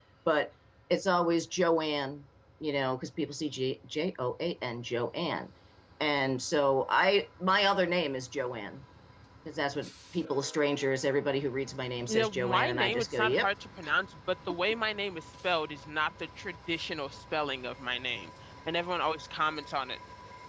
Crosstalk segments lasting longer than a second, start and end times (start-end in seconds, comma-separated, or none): 12.1-13.5